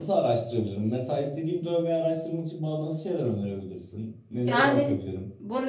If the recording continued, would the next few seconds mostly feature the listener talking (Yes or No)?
Yes